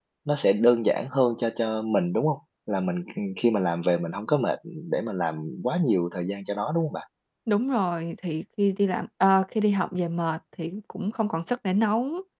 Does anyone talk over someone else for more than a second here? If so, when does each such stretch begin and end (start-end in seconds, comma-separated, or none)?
none